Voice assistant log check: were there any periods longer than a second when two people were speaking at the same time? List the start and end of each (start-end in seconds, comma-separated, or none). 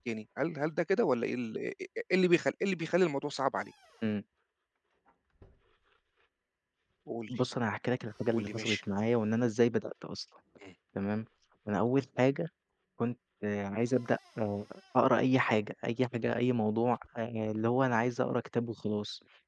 none